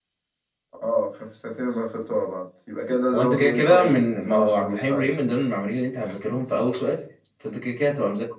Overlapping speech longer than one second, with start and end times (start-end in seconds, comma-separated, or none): 3.1-5.1